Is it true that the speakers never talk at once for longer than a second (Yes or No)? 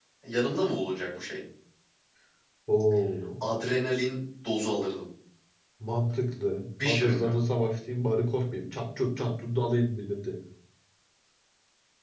Yes